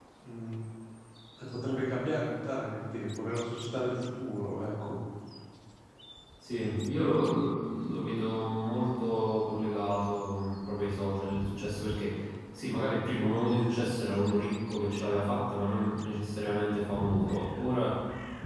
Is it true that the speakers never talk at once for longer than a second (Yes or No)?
Yes